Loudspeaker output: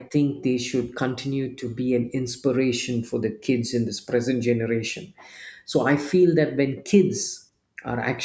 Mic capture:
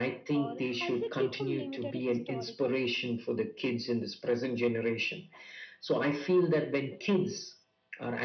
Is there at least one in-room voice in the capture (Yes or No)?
Yes